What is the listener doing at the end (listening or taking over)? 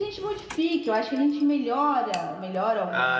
taking over